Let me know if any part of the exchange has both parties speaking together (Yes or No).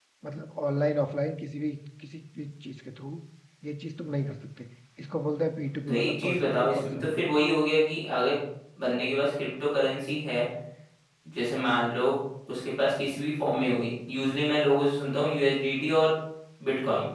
Yes